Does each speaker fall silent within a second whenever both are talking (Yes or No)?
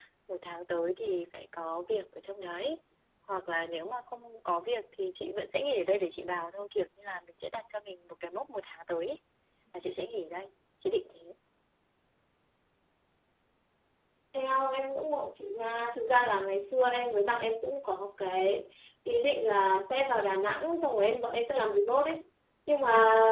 Yes